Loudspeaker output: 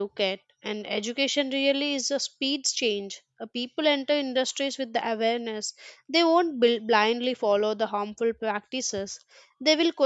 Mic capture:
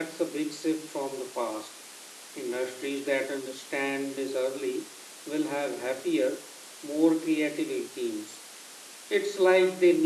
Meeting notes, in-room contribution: present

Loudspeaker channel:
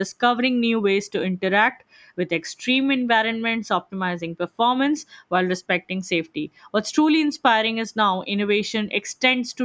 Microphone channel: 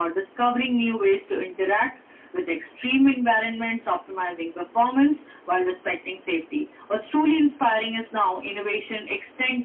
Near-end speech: none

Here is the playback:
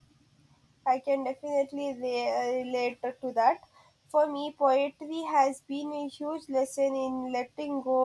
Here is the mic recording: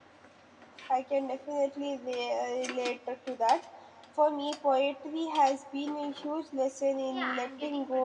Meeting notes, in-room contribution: present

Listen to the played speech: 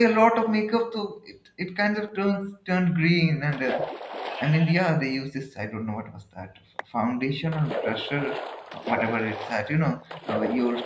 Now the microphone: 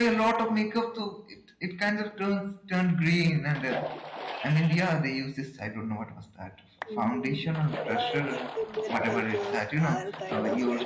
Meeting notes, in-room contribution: present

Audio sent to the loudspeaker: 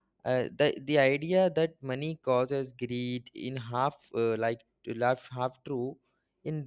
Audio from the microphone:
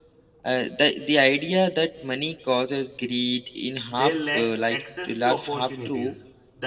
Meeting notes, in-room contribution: present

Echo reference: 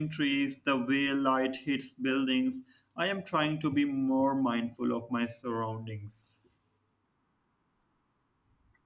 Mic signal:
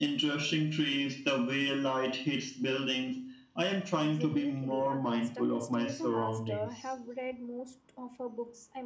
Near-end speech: present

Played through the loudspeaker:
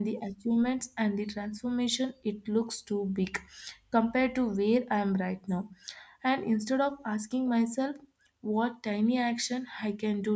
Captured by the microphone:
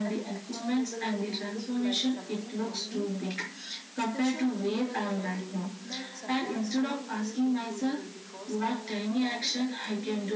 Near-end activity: present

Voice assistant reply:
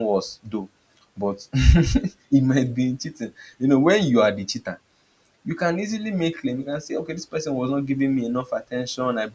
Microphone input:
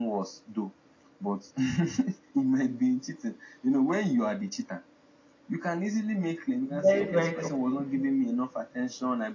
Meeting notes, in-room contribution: present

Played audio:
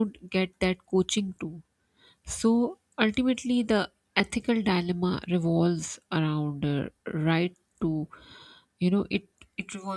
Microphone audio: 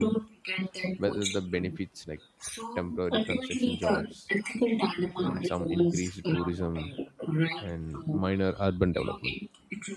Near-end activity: present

